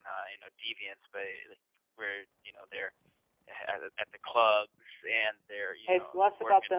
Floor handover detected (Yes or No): Yes